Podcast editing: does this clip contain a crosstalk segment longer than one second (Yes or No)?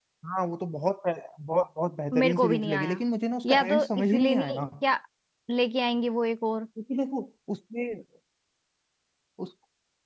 Yes